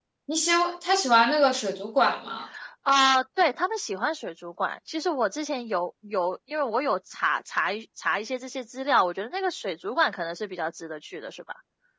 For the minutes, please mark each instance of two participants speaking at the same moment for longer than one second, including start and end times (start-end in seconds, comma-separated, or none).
none